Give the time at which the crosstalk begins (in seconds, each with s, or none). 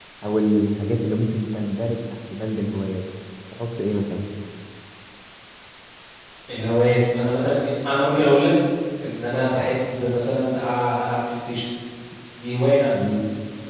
none